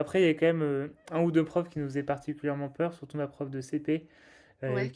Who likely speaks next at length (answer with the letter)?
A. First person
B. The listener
A